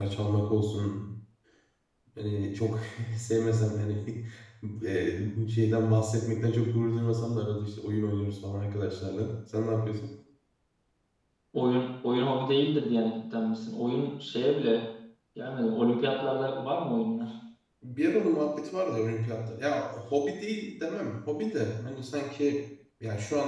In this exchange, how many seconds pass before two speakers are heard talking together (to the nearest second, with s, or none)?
none